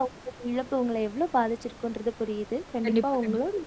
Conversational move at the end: listening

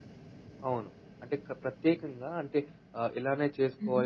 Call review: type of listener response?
listening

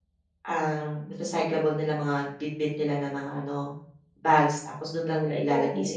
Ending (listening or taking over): listening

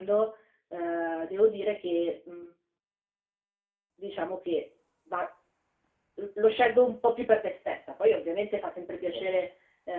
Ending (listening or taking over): listening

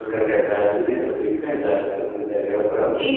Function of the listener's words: taking over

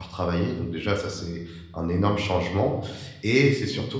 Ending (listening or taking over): listening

